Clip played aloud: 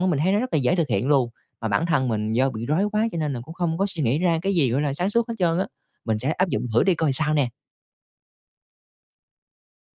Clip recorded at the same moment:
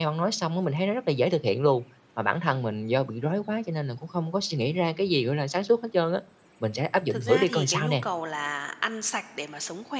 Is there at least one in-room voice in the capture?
Yes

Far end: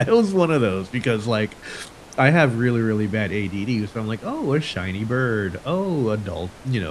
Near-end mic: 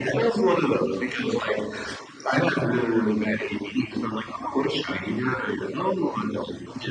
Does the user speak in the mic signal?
No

